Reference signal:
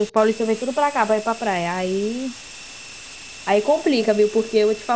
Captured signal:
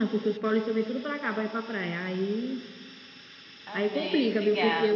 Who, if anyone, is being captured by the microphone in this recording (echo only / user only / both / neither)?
both